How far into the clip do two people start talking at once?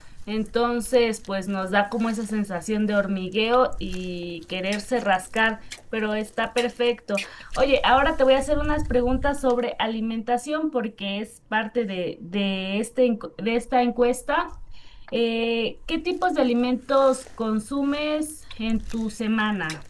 none

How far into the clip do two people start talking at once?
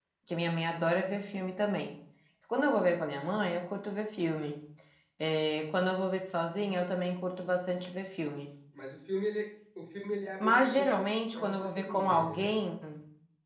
10.4 s

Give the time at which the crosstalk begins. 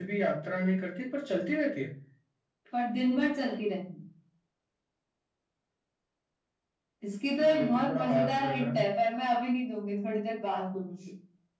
7.4 s

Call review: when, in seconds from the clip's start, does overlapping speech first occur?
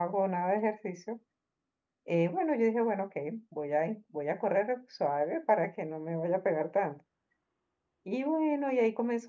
none

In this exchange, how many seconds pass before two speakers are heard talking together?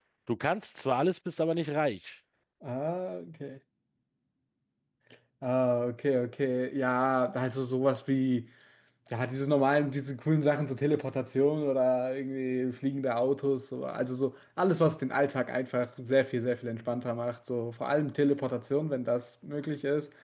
none

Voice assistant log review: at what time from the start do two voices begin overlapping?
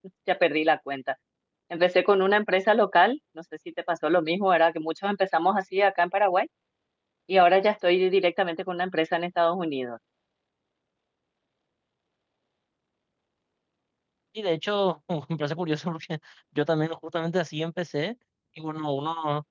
none

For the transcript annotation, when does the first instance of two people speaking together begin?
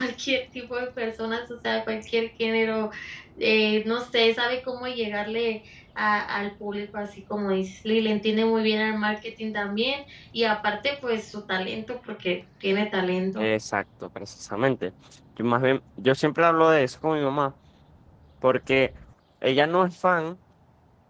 none

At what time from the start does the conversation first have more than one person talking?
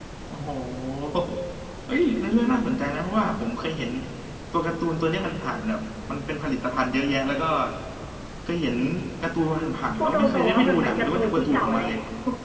10.0 s

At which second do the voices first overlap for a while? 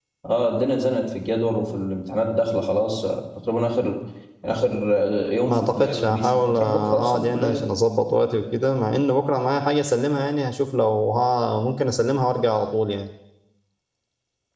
5.5 s

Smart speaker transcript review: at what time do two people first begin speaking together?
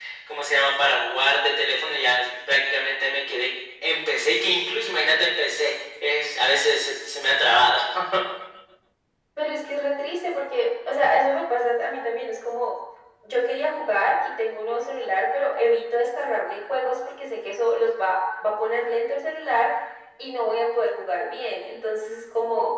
none

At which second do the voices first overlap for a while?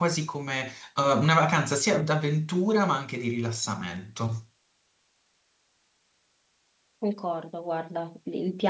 none

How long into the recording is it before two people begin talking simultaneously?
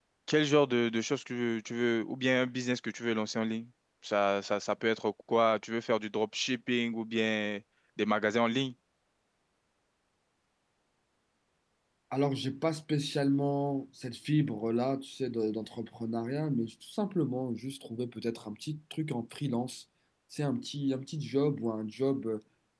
none

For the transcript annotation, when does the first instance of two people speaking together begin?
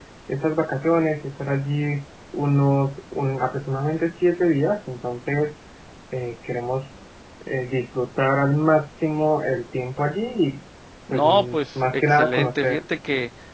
11.1 s

